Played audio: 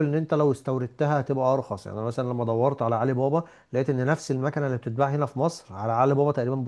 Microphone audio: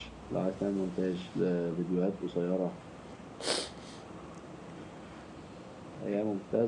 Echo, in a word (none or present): none